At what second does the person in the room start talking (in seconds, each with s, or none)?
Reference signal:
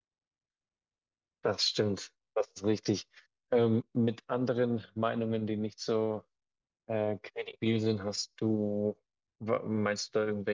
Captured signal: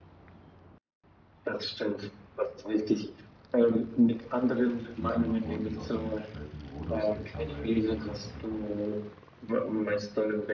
4.9 s